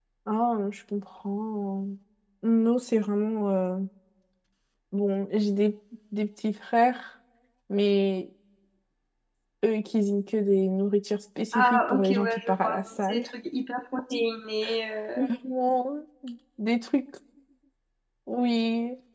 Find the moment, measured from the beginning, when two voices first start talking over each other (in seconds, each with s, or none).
11.5 s